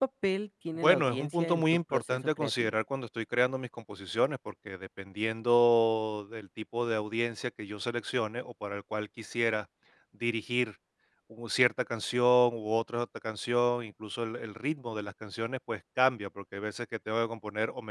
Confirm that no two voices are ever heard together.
No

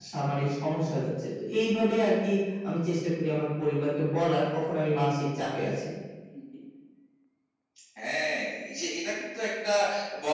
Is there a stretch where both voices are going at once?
No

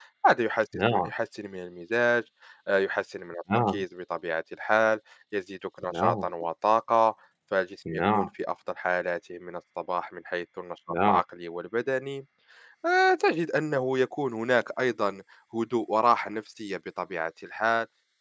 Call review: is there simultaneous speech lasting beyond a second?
No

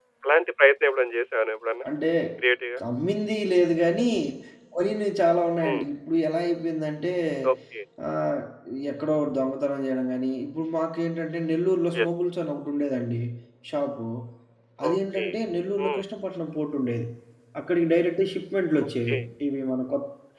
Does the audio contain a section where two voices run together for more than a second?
No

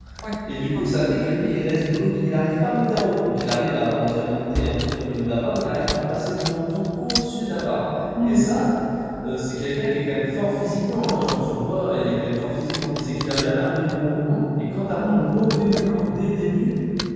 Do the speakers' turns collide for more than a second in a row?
No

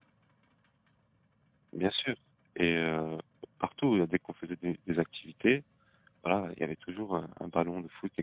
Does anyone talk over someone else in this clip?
No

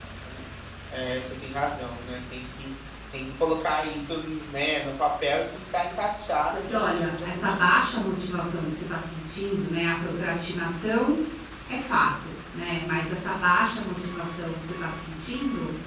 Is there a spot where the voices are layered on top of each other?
Yes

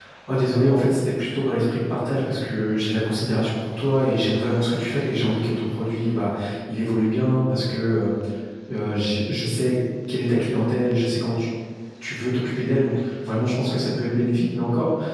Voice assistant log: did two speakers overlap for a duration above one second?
No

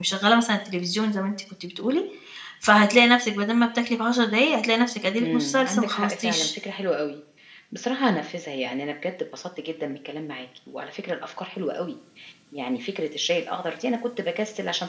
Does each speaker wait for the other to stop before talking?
No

